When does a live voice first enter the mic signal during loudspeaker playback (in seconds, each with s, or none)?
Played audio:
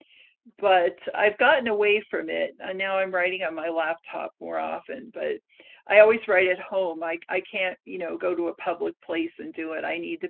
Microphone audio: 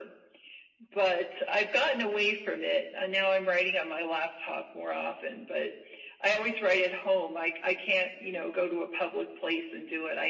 none